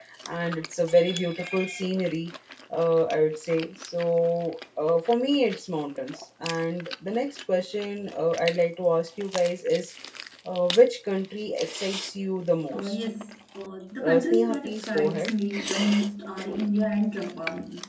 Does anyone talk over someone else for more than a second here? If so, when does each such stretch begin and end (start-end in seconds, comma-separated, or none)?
14.0-15.3